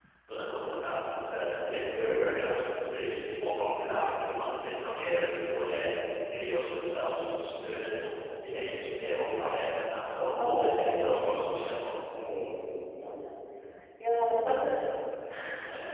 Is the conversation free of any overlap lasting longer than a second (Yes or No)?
No